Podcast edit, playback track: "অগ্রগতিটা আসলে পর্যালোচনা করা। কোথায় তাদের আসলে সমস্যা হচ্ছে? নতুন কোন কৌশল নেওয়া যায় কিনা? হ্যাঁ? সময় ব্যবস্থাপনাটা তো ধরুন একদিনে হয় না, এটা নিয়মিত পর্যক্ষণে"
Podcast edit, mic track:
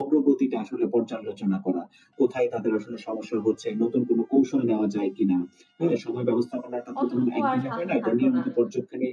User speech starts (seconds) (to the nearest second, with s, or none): 7 s